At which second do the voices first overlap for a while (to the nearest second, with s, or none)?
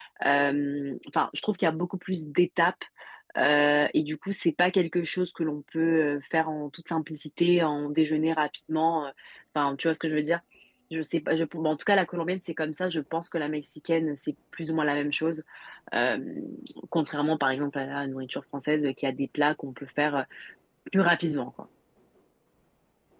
none